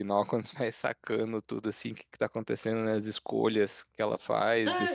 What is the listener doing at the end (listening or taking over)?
taking over